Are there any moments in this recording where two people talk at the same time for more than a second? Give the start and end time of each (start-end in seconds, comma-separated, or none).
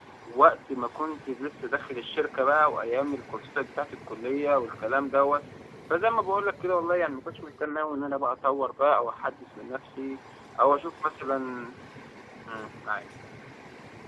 none